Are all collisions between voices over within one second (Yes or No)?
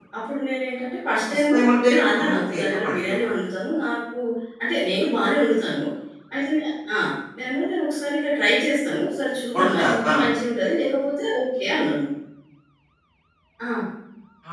No